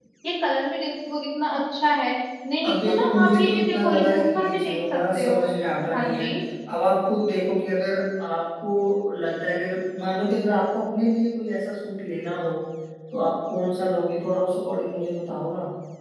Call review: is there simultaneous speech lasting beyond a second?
Yes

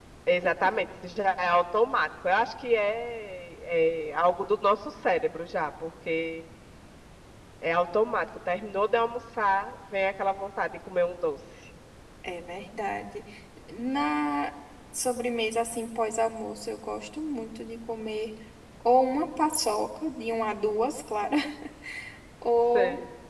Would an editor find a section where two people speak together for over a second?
No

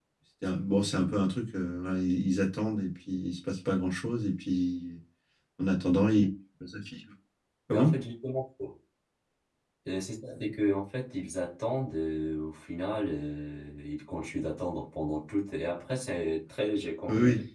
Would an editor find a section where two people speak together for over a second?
No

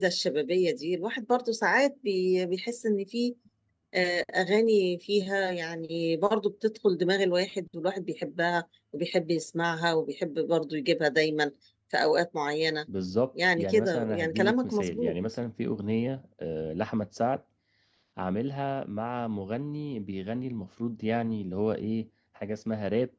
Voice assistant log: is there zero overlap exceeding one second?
No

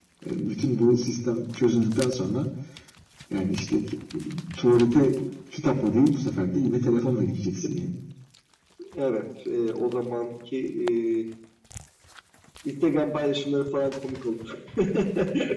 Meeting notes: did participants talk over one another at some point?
No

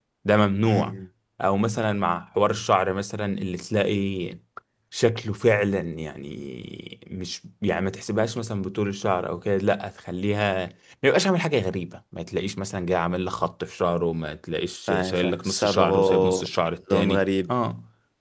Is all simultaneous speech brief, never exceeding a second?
No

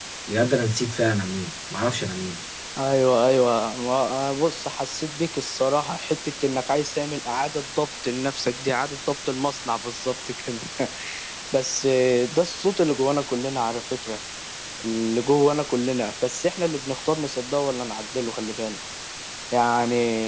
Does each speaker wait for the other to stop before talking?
Yes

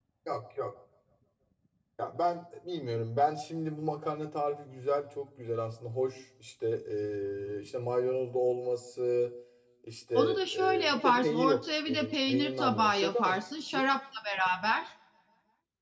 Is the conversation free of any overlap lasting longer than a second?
No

